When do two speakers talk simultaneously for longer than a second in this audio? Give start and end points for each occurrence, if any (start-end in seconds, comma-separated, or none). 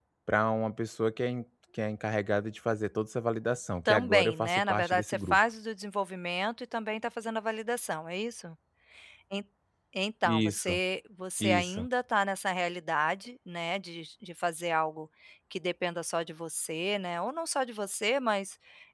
3.9-5.4